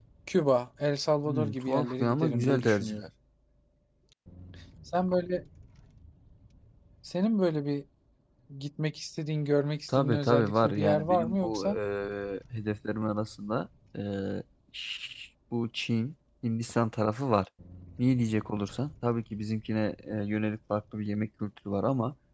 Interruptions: present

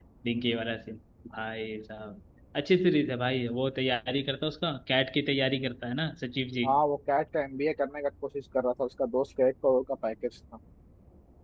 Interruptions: none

